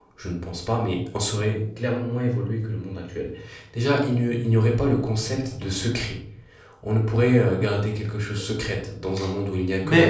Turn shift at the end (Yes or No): Yes